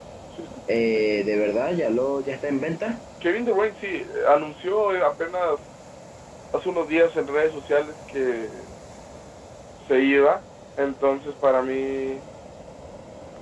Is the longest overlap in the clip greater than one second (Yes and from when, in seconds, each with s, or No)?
No